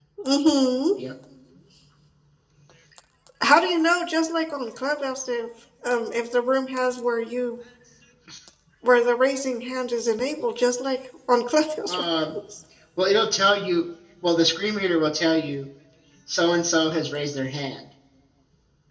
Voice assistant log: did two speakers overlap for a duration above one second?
No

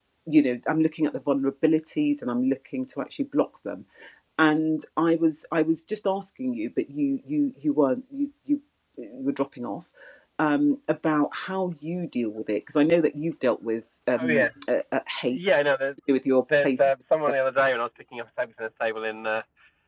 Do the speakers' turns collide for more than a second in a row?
No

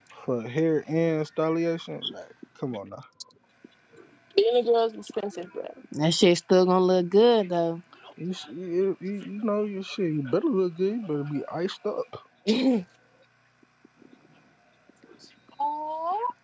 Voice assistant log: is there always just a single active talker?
Yes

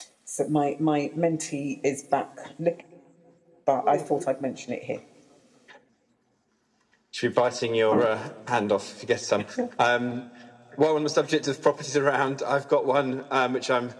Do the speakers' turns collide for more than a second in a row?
No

